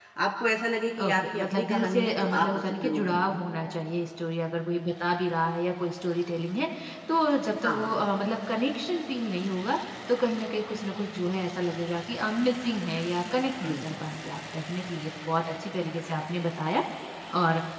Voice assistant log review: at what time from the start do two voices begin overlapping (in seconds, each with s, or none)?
1.0 s